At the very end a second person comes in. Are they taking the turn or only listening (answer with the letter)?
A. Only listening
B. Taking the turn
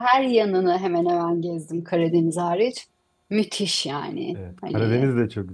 B